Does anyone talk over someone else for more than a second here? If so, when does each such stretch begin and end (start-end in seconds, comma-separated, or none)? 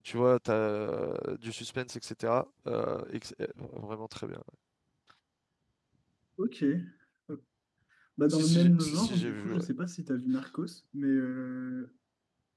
8.3-9.6